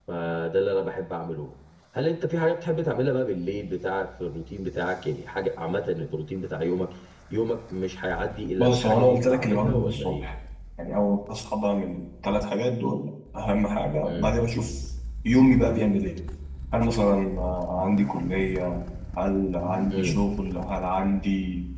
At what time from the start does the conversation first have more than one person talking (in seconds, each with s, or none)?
8.6 s